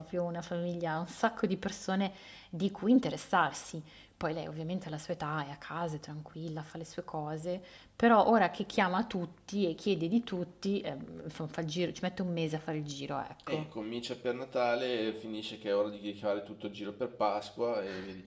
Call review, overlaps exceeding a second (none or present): none